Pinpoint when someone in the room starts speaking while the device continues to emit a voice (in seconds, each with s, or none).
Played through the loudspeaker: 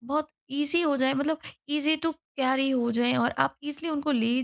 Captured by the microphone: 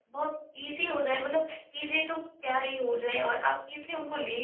none